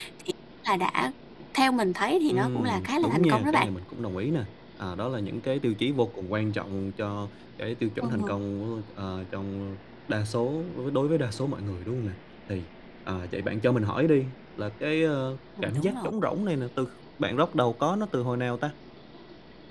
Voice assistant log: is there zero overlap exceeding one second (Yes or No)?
No